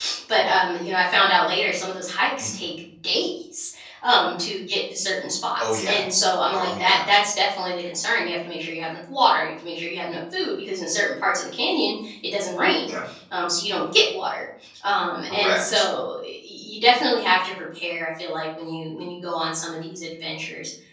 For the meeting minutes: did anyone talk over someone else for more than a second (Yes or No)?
No